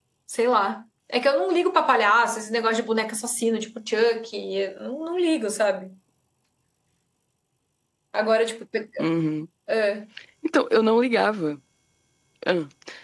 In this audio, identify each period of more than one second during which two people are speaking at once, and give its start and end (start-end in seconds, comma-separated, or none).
none